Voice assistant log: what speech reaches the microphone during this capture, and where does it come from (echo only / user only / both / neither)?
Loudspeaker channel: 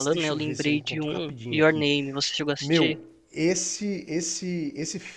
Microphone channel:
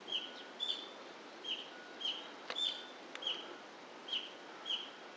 neither